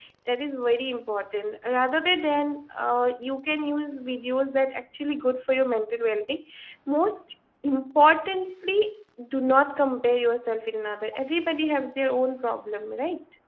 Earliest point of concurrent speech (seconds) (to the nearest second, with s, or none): none